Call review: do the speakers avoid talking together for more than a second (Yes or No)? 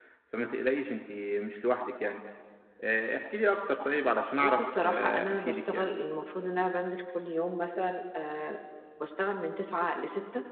No